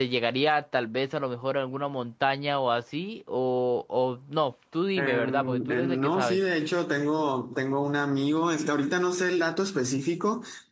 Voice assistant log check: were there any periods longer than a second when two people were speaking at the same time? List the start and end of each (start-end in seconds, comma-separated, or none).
5.0-6.4